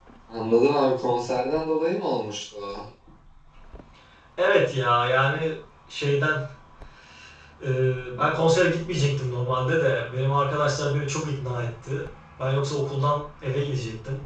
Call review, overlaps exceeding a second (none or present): none